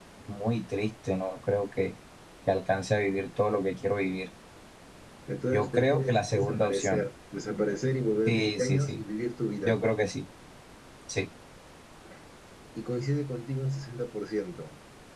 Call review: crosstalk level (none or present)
present